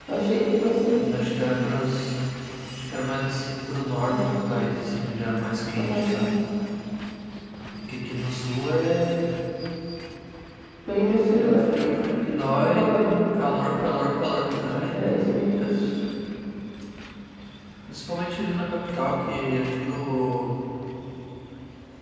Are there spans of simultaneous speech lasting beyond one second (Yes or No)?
No